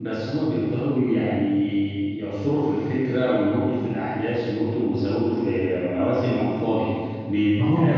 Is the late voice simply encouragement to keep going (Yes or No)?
Yes